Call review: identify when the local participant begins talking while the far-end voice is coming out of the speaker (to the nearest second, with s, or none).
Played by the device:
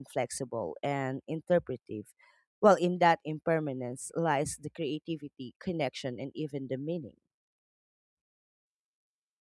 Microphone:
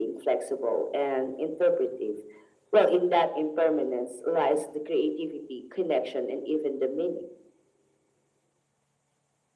none